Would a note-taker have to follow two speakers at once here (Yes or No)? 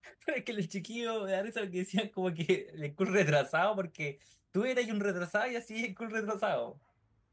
No